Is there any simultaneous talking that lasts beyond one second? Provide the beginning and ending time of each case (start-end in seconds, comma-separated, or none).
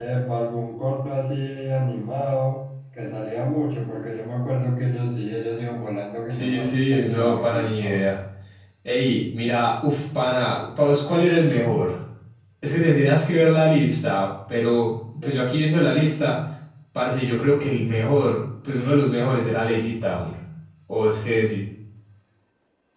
6.4-8.0